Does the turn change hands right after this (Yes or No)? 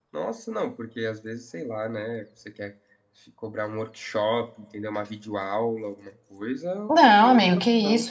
Yes